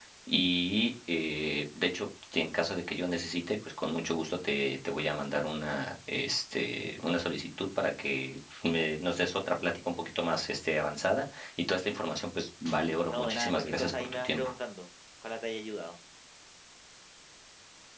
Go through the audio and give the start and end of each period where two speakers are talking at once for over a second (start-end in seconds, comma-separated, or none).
13.1-14.5